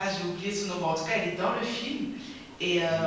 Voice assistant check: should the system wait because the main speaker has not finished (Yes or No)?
Yes